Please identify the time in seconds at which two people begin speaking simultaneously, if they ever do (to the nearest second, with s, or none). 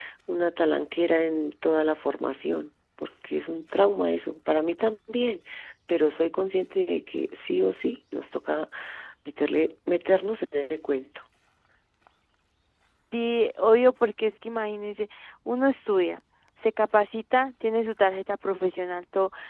none